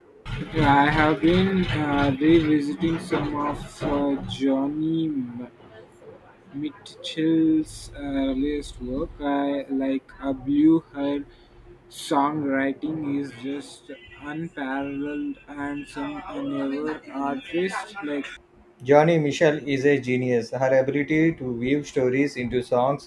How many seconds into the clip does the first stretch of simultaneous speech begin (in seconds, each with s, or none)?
none